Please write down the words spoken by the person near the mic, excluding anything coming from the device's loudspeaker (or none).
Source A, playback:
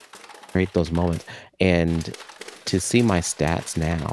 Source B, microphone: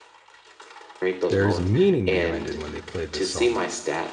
There's meaning behind it when they play this song.